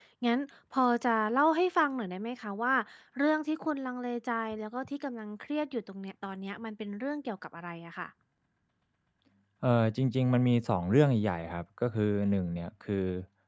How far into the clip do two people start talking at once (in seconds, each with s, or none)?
none